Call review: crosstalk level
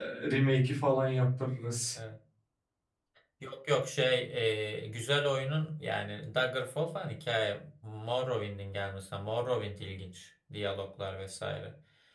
none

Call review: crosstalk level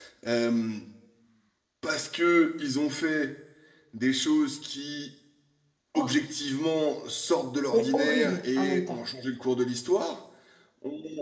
present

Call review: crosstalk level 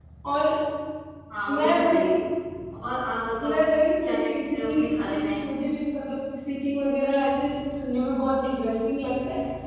present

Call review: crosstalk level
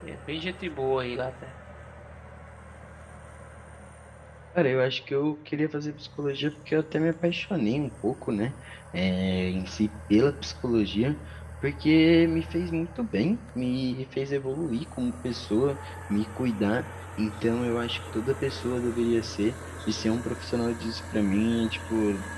none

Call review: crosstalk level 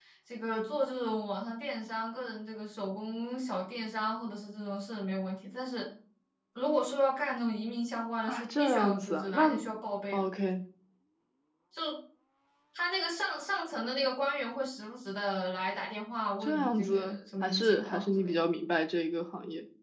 present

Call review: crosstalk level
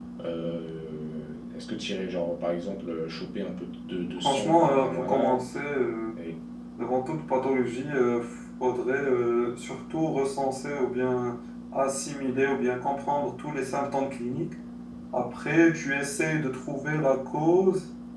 present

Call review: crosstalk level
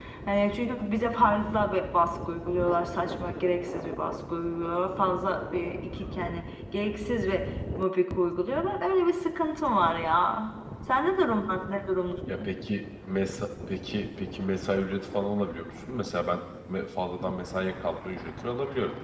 none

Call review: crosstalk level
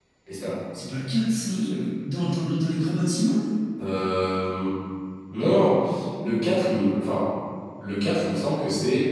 none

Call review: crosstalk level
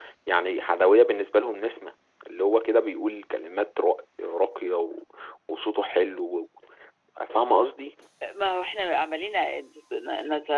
none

